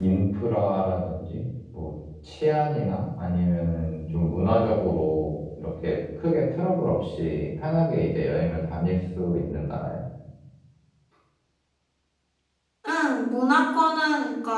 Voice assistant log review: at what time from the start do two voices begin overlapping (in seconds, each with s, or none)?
none